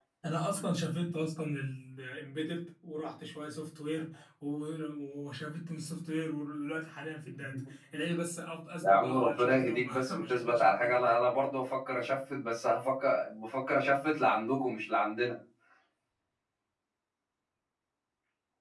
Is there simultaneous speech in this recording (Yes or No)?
Yes